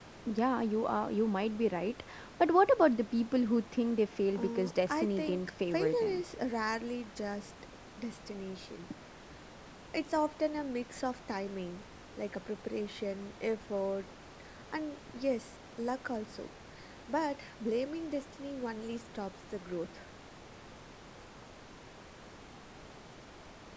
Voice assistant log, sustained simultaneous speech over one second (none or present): present